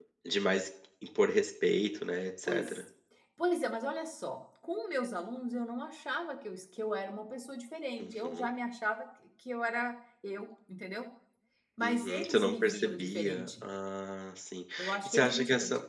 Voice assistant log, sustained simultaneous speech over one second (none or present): present